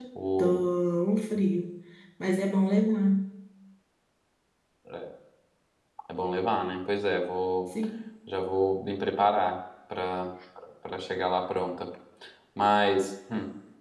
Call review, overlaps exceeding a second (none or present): none